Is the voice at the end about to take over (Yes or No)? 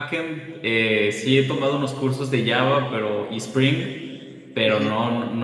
No